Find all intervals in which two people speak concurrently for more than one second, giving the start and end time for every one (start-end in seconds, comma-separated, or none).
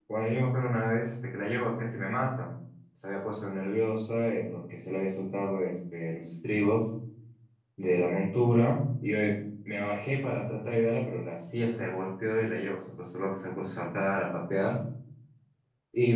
none